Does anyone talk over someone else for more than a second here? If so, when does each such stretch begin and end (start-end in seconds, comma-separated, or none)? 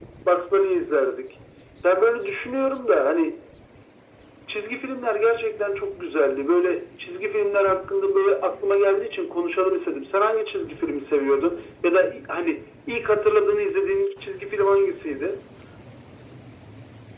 none